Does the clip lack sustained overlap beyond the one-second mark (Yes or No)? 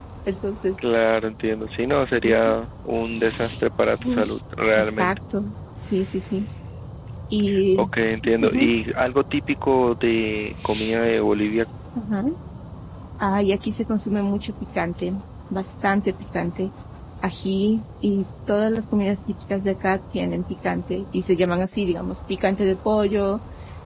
Yes